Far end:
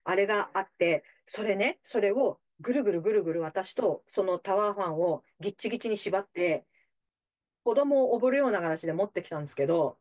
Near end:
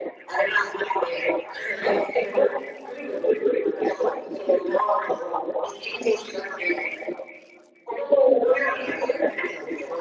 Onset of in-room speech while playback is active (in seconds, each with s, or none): none